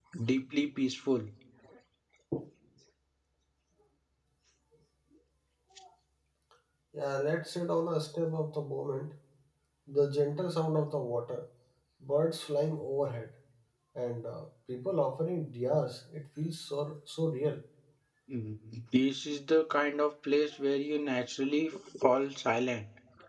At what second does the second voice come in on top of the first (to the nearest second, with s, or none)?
none